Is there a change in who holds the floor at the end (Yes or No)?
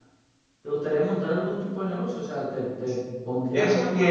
Yes